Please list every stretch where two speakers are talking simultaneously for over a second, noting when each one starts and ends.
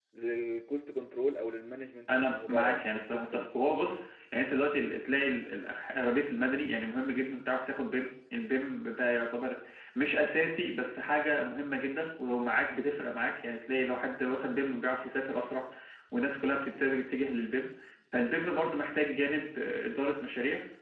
2.1-3.5

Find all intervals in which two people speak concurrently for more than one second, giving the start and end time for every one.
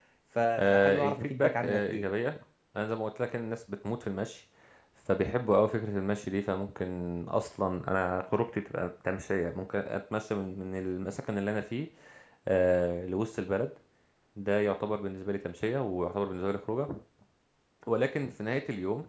0.6-2.0

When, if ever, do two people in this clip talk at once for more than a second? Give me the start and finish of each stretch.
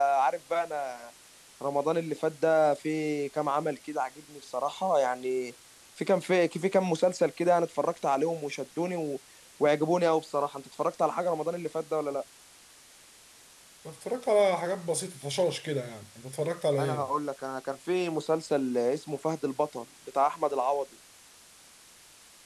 none

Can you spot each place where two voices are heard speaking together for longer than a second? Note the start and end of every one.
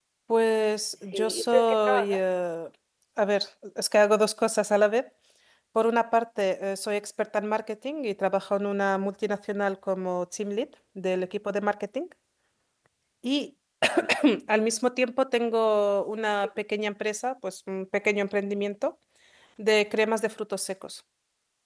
1.0-2.4

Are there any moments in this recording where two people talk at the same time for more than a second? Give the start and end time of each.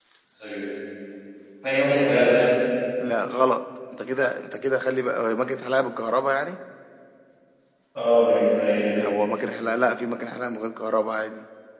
none

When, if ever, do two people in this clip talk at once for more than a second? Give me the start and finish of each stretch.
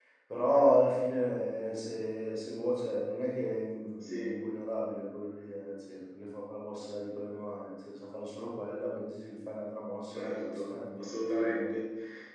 10.1-11.7

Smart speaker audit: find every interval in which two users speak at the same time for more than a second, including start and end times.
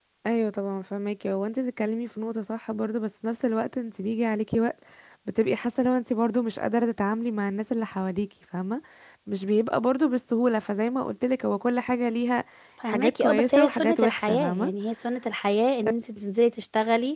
12.8-14.7

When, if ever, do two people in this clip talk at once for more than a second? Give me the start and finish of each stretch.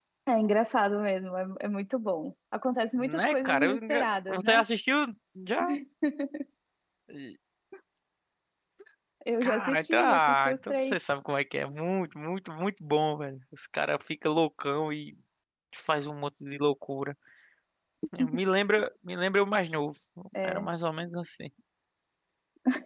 3.0-4.6, 9.4-11.0

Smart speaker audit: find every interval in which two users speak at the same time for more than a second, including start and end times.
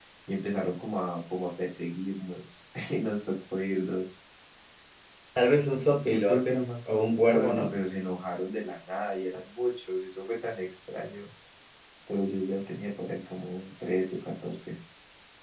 6.0-7.7

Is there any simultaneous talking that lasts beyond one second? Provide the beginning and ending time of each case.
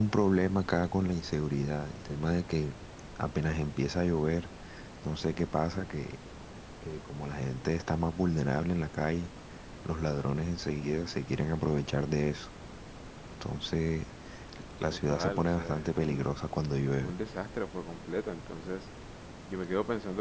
14.9-16.3

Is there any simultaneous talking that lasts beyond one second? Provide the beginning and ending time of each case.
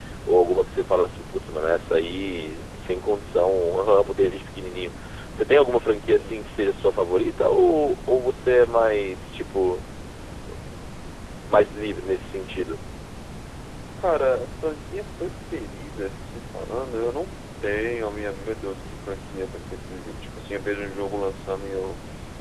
none

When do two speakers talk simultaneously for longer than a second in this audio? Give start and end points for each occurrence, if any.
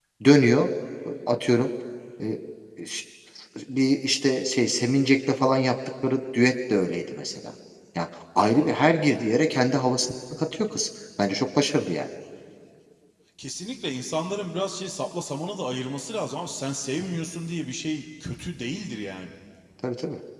none

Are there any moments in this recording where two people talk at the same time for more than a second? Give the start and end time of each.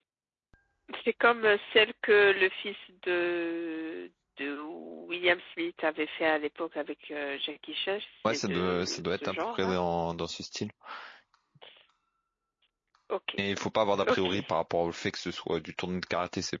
8.2-9.8

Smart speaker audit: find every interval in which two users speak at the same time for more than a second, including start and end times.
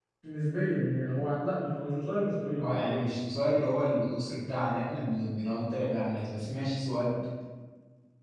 none

